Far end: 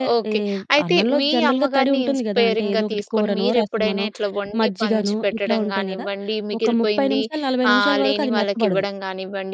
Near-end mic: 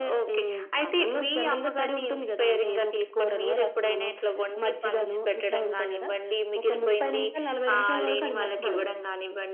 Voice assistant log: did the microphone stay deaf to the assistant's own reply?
No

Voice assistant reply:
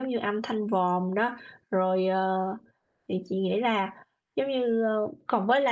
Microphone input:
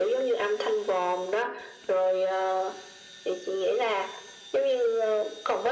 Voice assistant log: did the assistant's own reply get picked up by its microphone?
Yes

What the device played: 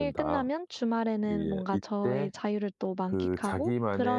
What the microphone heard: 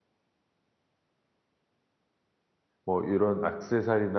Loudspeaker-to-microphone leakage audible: No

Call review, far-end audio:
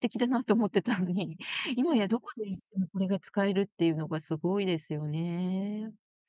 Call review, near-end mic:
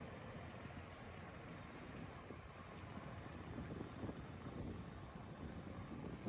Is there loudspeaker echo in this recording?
No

